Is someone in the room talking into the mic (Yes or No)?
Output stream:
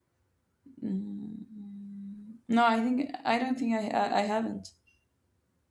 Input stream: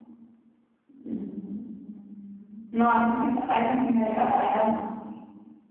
No